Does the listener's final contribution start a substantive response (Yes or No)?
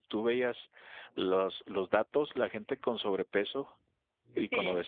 No